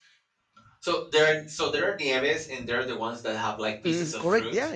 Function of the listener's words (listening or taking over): taking over